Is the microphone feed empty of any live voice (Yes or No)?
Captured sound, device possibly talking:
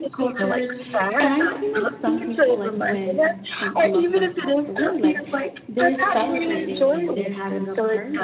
No